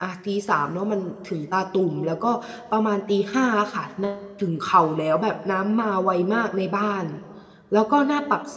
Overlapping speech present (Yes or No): No